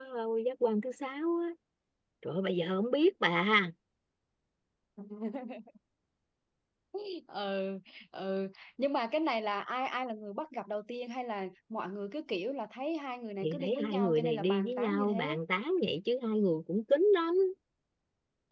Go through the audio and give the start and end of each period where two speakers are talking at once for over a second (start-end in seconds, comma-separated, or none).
13.4-15.4